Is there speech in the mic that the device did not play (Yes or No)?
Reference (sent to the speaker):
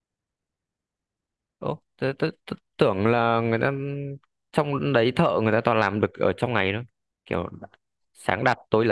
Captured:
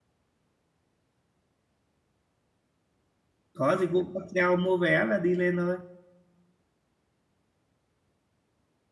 Yes